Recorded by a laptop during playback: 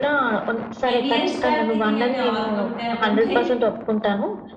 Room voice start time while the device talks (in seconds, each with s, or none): 0.9 s